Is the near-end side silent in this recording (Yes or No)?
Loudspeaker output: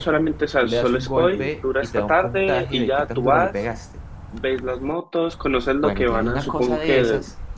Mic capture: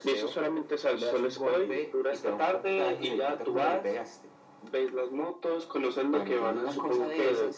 Yes